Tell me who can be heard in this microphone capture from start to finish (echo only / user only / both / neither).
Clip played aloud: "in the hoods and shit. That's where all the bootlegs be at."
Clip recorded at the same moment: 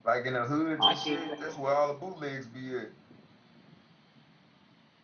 both